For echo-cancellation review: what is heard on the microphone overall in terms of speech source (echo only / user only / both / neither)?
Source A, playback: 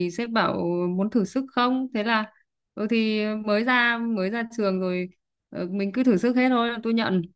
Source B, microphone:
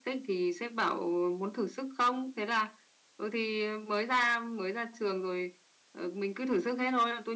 echo only